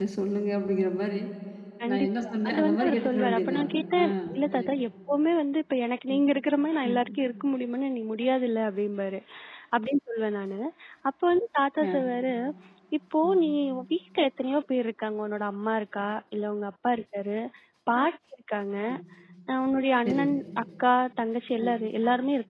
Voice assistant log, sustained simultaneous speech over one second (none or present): present